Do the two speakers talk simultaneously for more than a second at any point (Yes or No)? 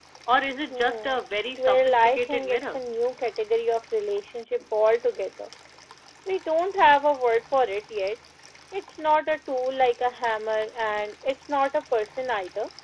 Yes